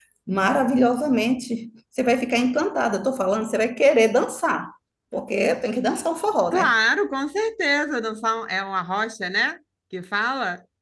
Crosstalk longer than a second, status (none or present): none